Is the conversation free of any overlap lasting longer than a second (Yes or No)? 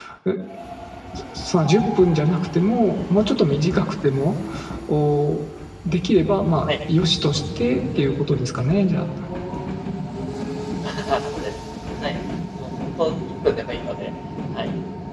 Yes